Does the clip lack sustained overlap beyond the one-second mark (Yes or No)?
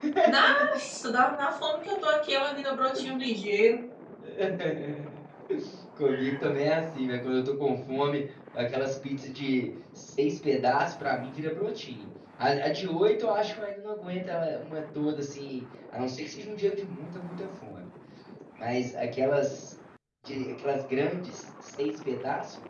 Yes